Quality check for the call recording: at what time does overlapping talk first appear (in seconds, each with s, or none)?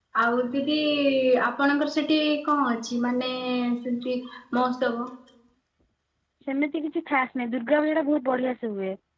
none